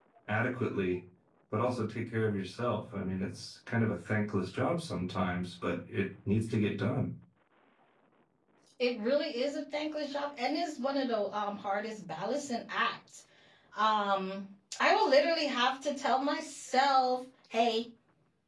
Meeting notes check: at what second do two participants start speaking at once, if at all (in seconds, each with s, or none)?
none